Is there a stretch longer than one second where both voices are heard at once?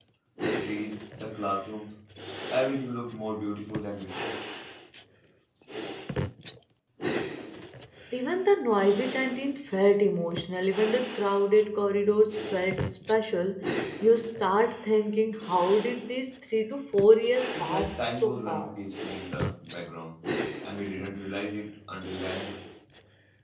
Yes, from 17.6 s

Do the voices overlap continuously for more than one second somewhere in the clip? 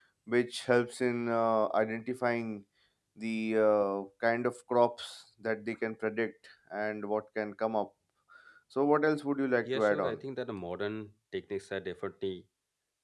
No

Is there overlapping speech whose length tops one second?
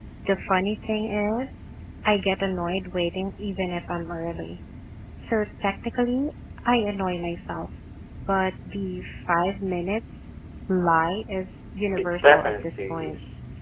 Yes, from 12.0 s

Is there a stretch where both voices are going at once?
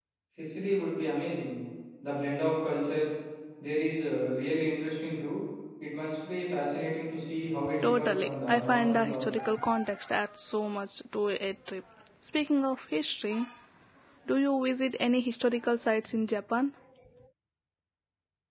Yes, from 7.8 s

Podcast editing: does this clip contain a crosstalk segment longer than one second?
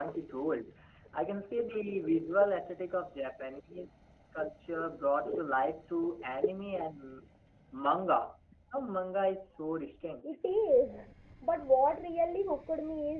No

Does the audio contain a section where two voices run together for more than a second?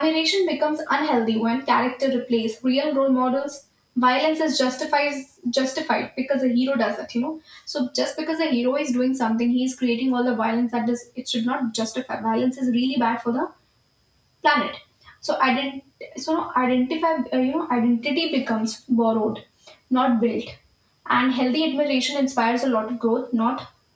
No

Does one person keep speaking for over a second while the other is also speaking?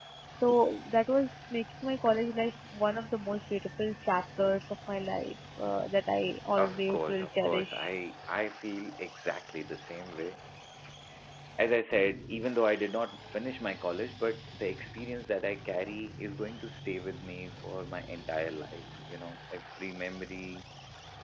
Yes, from 6.5 s

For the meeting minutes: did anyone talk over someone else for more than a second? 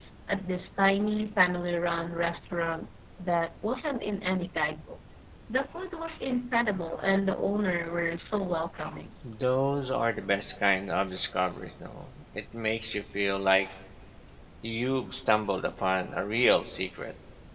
No

